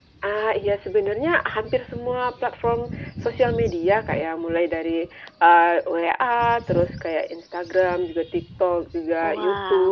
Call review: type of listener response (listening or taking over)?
listening